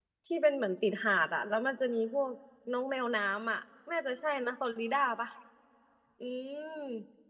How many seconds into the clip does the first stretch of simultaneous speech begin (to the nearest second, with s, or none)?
none